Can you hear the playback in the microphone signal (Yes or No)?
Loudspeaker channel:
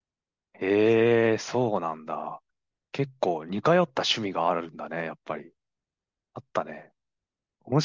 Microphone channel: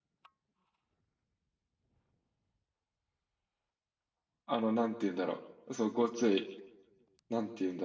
No